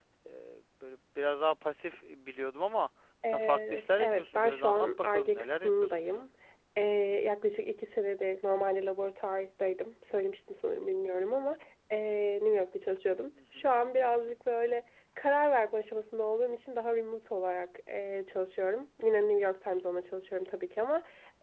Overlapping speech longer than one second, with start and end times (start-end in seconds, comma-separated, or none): 3.2-6.2